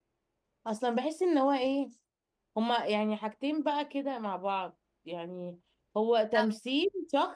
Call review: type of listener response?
listening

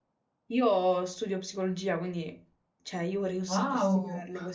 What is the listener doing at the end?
listening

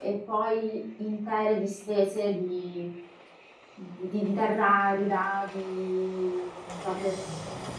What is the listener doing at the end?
listening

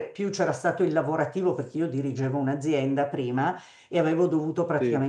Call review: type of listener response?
listening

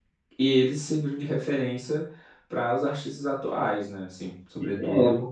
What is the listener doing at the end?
taking over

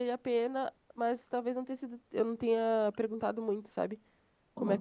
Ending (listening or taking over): taking over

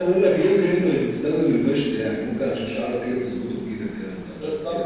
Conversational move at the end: taking over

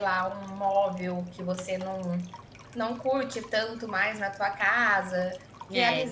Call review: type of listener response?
listening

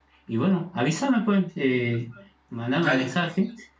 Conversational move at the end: listening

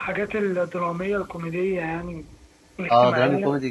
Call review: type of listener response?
taking over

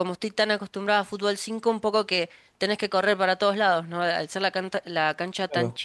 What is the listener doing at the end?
listening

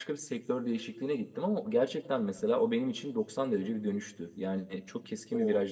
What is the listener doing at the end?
listening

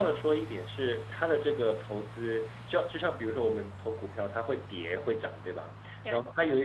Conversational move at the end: listening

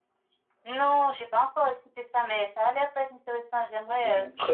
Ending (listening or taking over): taking over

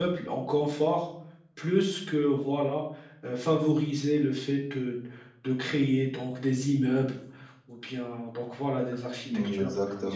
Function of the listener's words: taking over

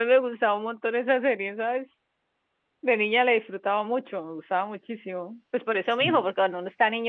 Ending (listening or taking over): listening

